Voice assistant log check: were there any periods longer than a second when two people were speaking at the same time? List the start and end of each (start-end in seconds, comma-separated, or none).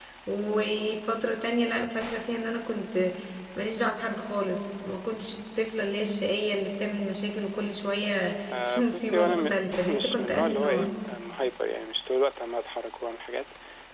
8.5-10.9